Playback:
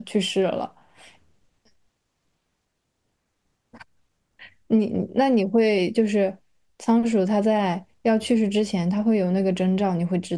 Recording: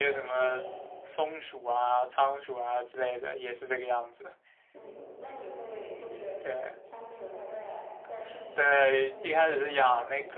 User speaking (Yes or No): Yes